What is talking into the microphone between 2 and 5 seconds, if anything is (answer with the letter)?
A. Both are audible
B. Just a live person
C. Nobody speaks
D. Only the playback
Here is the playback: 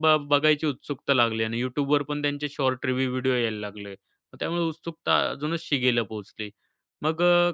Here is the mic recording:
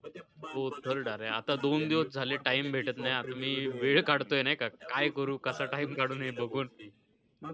A